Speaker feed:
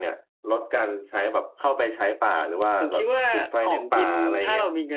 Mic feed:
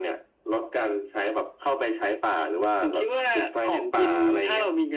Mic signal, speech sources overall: echo only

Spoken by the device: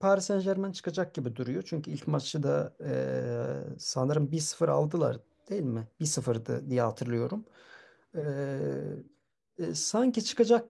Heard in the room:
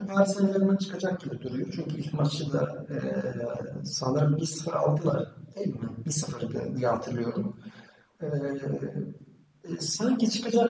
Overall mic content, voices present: echo only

